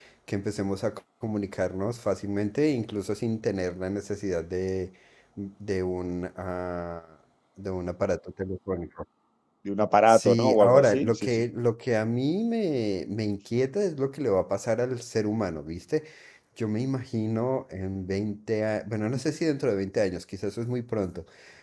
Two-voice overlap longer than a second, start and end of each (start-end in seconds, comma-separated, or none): 10.1-11.4